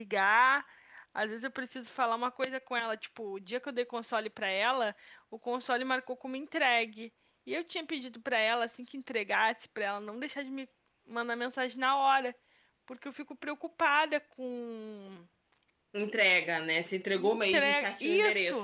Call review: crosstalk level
present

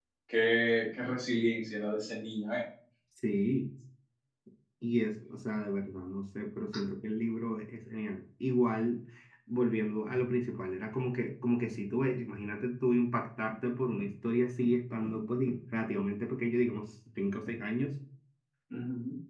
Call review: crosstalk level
none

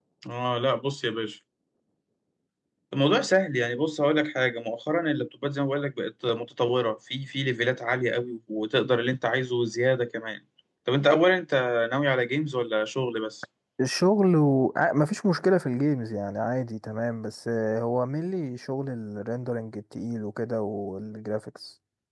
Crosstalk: none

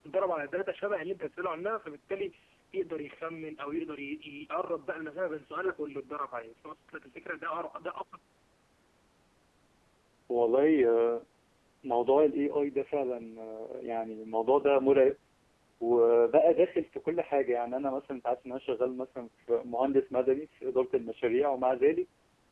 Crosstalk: none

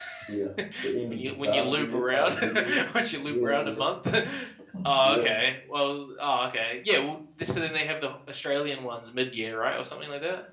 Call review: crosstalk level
present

